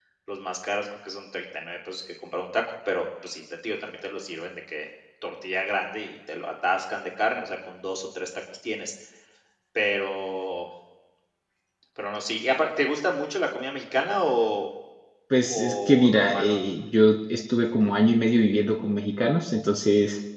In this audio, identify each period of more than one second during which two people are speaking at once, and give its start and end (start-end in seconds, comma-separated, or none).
15.4-16.6